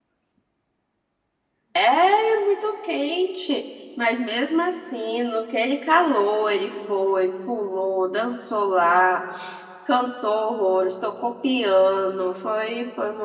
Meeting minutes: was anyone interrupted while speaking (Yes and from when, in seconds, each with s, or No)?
No